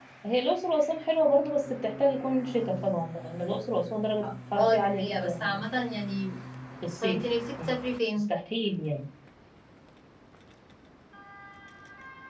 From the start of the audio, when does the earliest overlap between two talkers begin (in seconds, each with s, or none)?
4.2 s